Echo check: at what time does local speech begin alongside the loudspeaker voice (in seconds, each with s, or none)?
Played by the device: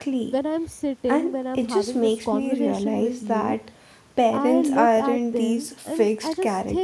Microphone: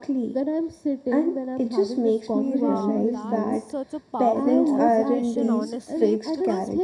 2.4 s